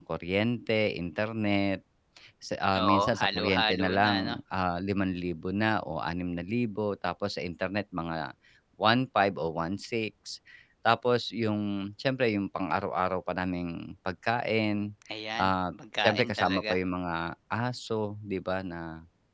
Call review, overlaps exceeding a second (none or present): present